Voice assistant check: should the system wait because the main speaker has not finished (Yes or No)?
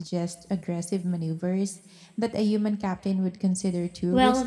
No